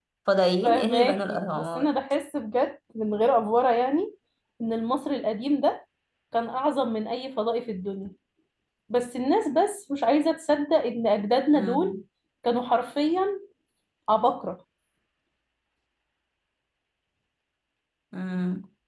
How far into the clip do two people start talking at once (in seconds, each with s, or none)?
0.6 s